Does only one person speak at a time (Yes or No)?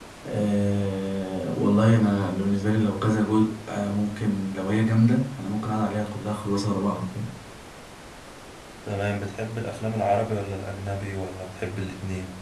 Yes